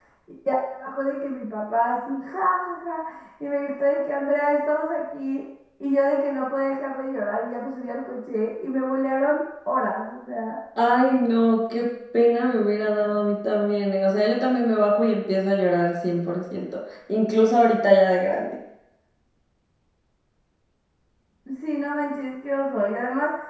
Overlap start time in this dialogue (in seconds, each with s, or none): none